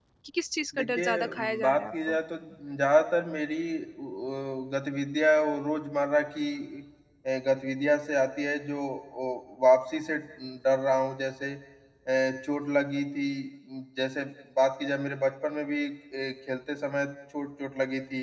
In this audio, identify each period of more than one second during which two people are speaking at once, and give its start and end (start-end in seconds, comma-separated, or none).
0.8-2.2